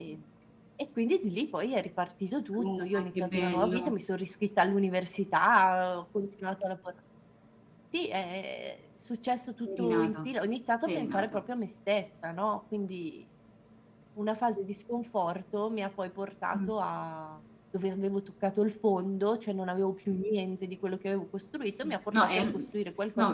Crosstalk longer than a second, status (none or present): present